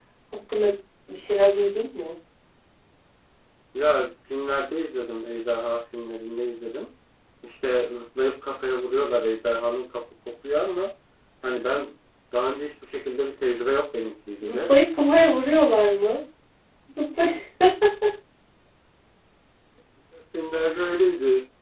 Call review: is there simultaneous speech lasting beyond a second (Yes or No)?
No